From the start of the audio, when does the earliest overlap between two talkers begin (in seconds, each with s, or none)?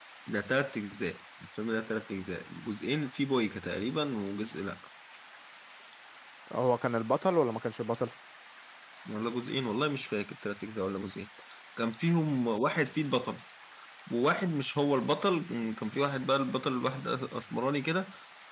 none